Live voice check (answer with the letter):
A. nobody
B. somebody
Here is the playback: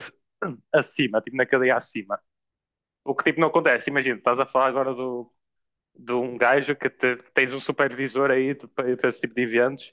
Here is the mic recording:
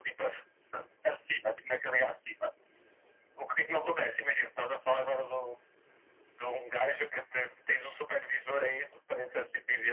A